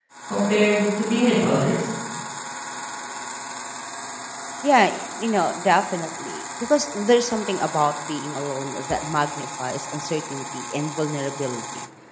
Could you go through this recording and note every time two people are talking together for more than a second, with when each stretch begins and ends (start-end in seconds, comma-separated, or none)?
none